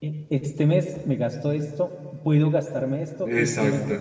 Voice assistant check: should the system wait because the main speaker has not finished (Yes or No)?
Yes